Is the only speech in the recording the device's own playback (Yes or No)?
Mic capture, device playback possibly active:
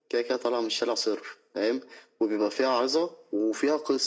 Yes